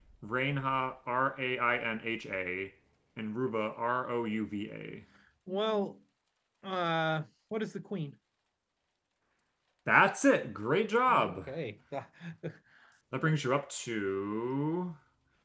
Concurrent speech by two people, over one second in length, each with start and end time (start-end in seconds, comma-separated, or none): none